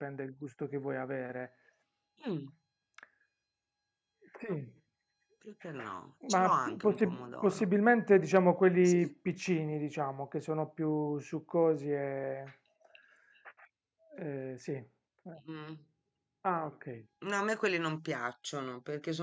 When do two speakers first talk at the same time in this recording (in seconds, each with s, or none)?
6.3 s